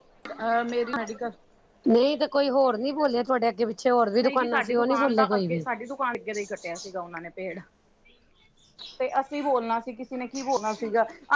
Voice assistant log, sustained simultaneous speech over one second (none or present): present